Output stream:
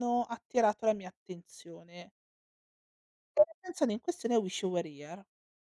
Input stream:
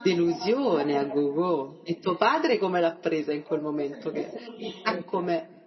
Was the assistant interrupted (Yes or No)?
Yes